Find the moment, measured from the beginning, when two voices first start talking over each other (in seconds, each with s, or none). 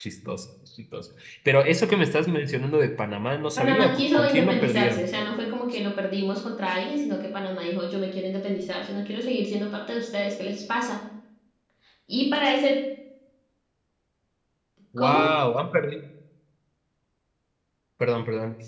3.6 s